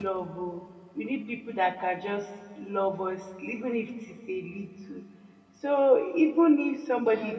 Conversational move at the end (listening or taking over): taking over